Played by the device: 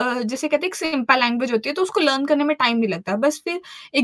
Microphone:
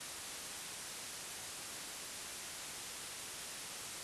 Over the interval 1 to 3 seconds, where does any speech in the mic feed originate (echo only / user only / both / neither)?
neither